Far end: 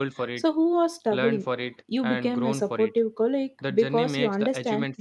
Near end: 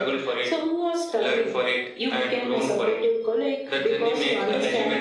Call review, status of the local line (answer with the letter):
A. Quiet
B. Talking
A